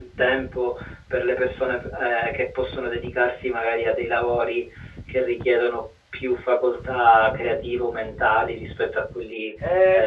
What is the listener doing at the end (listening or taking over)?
taking over